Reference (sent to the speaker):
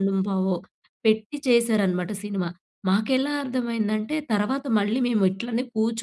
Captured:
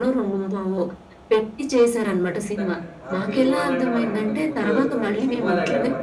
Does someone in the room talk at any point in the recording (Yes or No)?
Yes